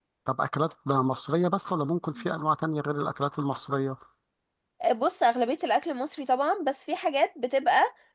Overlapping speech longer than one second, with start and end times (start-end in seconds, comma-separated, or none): none